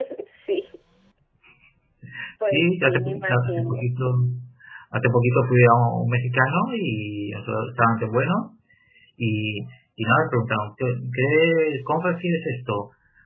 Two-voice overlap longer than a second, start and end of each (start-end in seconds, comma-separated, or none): 2.4-3.8